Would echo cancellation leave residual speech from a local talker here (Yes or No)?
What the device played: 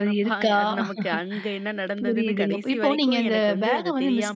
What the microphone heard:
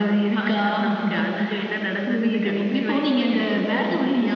No